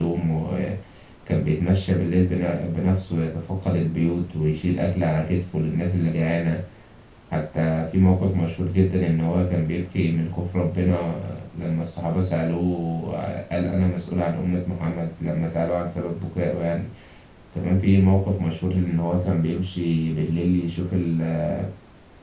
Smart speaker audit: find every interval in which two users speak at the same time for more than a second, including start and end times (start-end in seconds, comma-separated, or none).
none